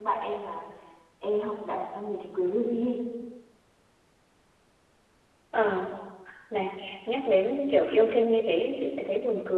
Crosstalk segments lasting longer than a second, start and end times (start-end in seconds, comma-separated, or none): none